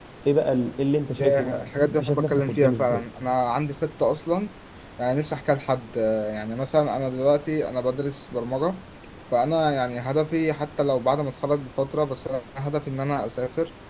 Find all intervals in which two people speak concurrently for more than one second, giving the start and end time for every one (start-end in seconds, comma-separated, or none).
1.2-3.0